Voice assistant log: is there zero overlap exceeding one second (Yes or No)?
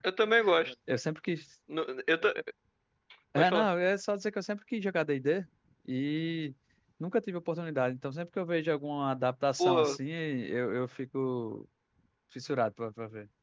Yes